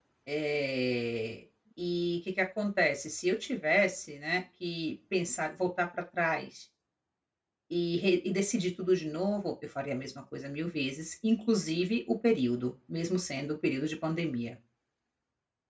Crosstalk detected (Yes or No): No